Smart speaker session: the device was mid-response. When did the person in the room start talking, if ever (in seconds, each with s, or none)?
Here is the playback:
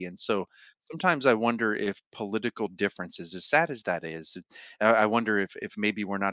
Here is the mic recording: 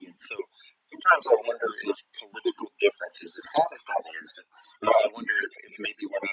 none